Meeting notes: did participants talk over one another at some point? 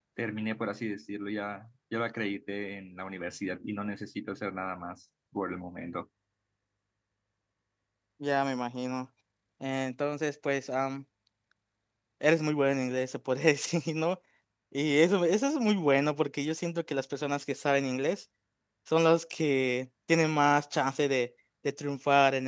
No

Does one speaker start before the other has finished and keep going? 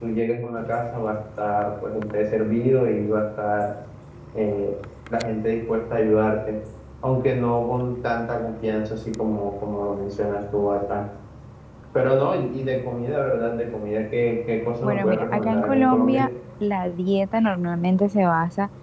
Yes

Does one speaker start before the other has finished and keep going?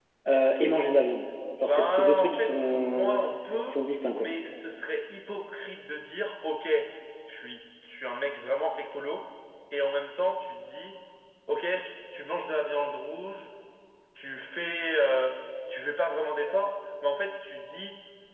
Yes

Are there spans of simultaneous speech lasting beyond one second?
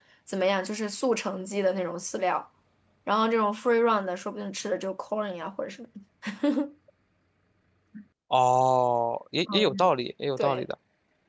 No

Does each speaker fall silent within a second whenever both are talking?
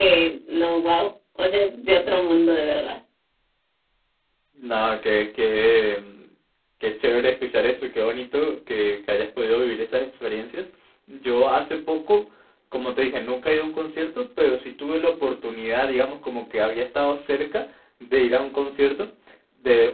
Yes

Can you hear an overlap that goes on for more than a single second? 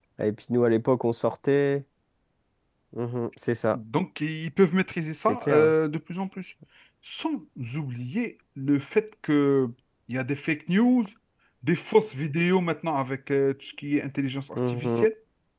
No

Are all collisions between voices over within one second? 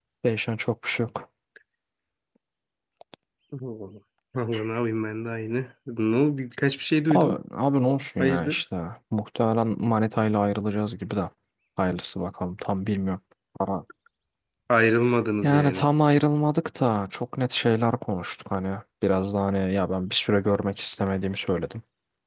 Yes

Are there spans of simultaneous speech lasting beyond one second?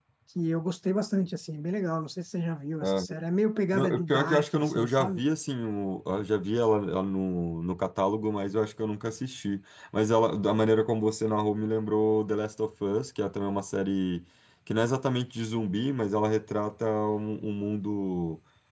Yes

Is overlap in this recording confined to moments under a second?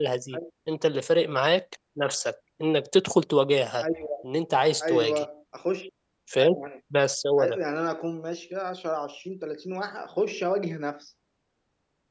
Yes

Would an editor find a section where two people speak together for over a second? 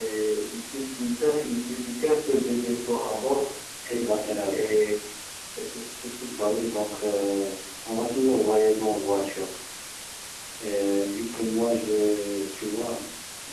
No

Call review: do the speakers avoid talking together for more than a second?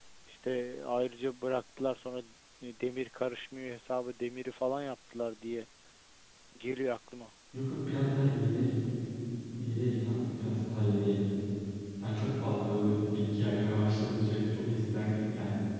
Yes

